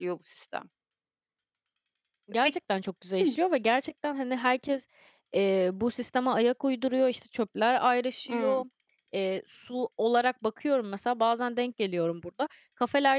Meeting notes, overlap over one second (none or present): none